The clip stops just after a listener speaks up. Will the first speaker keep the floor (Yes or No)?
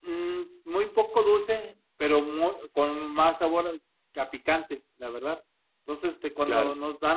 Yes